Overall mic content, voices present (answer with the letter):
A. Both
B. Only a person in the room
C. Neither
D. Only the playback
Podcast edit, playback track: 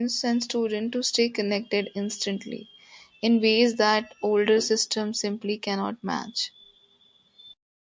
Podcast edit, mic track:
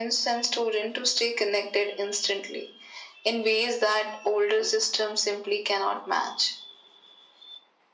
D